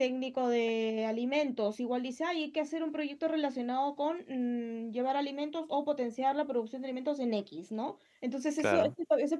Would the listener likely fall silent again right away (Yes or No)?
Yes